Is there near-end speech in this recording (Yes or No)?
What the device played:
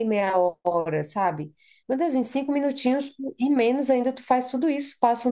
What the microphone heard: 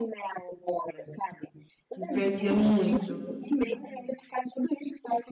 Yes